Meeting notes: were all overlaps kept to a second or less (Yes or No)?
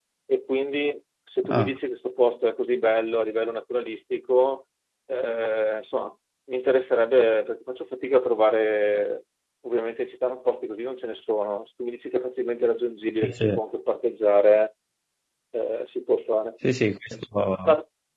Yes